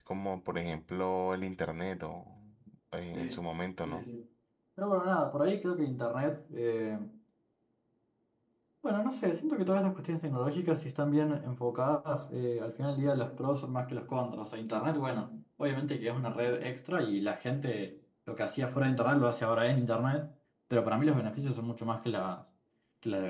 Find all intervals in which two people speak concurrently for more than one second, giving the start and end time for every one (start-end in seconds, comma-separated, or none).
none